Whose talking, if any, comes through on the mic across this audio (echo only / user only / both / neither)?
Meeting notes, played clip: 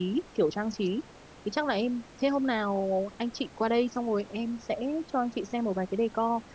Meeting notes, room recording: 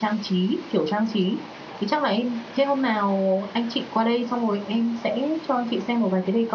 echo only